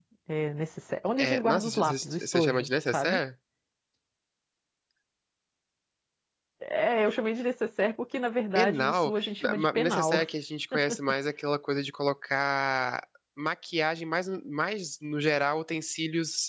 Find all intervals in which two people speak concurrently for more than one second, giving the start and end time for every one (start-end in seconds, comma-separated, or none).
1.2-3.2, 8.6-10.2